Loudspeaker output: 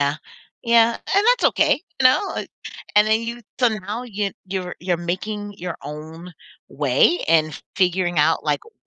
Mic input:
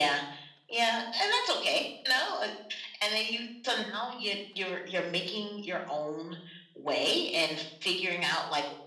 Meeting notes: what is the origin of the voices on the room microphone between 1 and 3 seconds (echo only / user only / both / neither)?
echo only